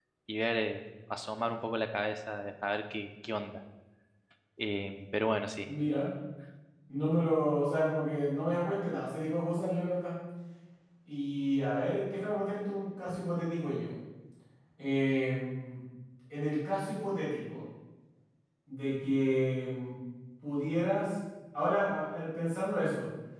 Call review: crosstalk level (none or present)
none